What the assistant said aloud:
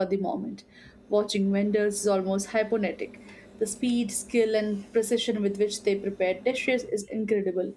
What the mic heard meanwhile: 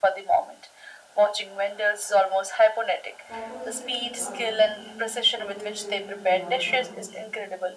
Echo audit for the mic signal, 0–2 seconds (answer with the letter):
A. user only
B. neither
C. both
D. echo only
D